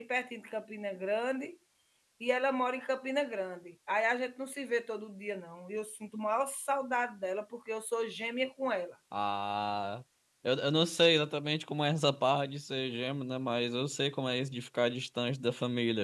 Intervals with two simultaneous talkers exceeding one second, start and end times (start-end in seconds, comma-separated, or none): none